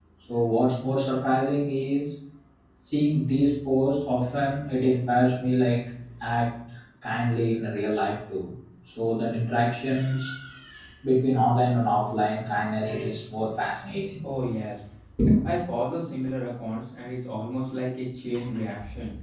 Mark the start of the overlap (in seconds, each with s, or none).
none